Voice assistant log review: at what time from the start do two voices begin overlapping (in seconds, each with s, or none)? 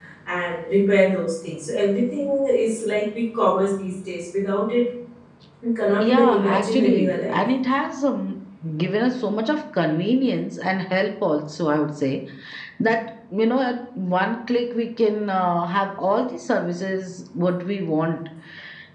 6.0 s